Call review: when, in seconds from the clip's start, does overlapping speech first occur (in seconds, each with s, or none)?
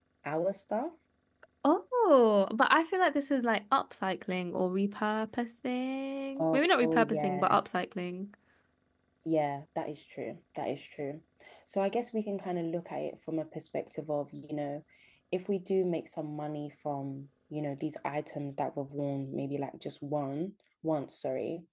6.4 s